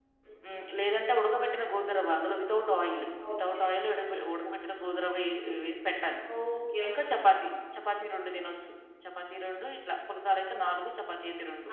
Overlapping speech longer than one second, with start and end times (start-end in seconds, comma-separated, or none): none